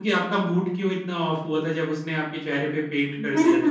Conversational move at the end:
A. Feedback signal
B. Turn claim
B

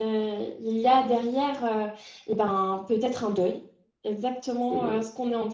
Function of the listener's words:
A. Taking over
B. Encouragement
B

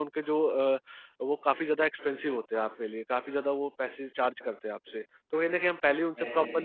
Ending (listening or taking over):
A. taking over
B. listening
B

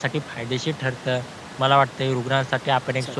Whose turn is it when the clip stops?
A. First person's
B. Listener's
A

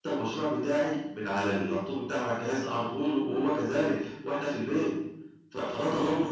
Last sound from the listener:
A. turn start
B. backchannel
A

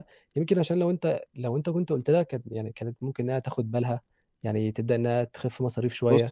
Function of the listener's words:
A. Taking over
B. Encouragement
A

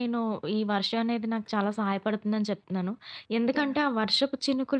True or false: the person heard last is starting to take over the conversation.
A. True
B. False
B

